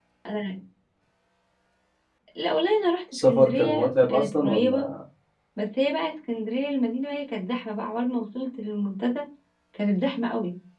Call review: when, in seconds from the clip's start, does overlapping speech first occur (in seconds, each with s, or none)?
3.1 s